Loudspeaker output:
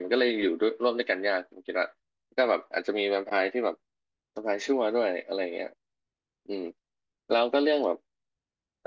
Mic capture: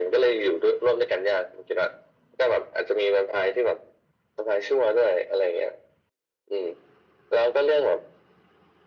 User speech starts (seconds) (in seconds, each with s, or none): none